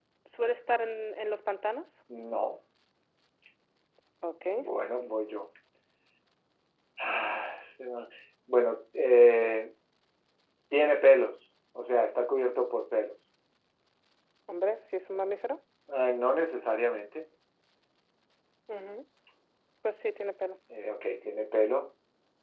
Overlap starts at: none

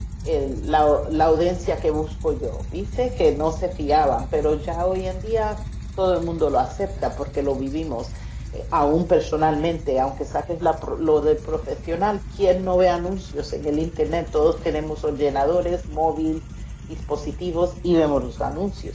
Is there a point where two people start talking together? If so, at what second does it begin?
none

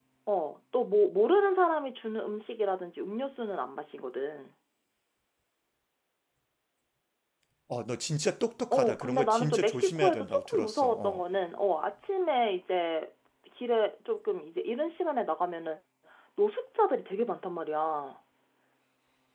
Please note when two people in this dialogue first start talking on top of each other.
8.7 s

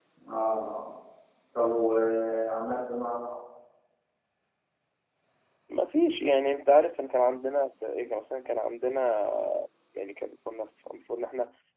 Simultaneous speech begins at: none

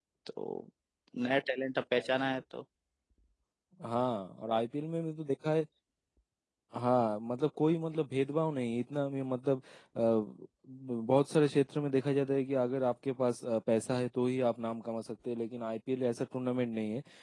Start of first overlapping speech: none

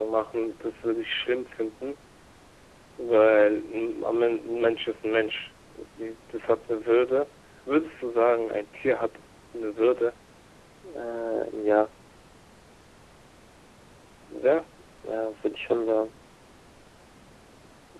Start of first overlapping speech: none

